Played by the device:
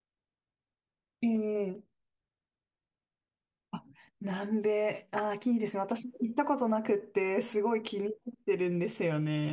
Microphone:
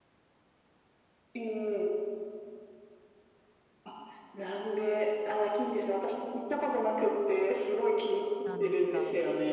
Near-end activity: present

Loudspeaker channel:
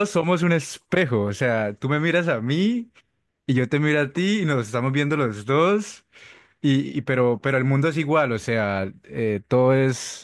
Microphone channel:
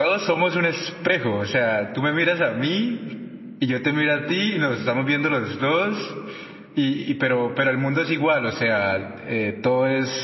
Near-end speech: none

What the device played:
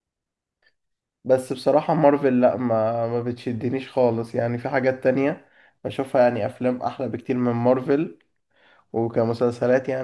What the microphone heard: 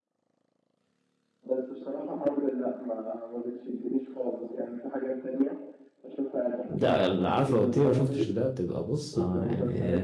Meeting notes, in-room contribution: present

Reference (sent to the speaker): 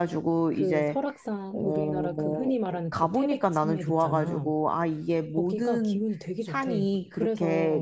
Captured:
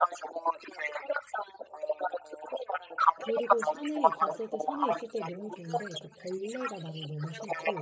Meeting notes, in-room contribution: present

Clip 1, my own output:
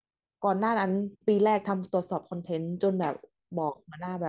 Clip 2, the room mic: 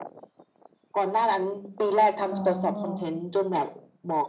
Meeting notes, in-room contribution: present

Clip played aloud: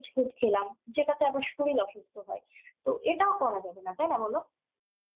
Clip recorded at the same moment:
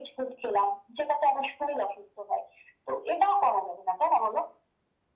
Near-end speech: none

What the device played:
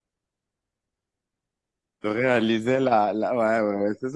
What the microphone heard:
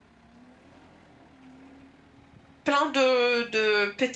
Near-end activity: present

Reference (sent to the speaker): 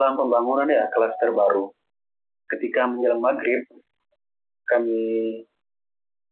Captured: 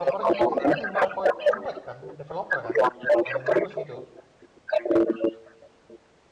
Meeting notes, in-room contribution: present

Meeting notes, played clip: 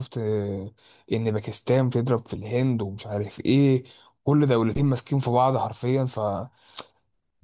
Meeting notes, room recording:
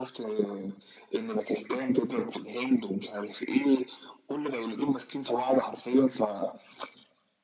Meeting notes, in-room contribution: none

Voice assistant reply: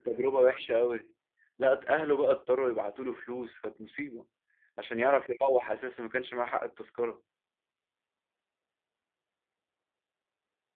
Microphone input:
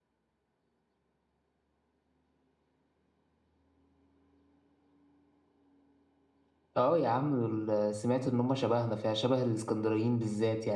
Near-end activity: present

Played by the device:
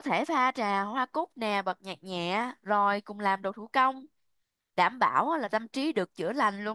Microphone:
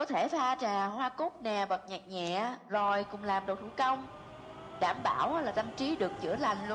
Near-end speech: none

